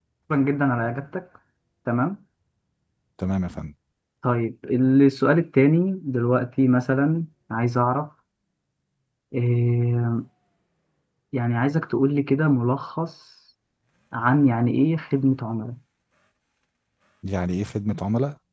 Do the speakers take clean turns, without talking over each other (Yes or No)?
Yes